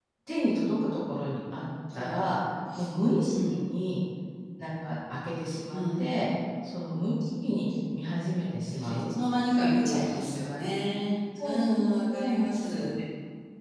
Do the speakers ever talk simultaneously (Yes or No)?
Yes